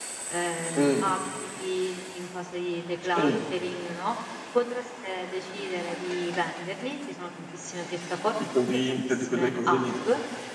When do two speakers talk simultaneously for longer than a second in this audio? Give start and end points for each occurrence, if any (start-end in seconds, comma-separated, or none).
8.4-9.8